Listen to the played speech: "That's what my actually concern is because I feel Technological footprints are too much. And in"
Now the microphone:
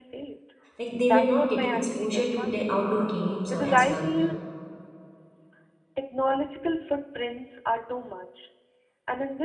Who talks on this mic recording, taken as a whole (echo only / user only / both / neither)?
both